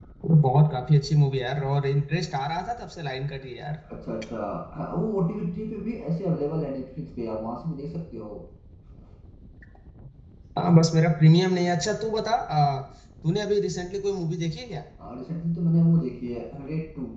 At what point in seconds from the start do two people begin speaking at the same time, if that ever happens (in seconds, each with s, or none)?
none